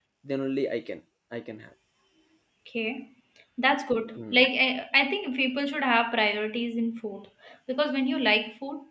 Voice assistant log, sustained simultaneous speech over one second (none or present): none